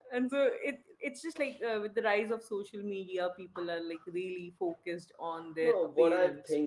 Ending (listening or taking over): taking over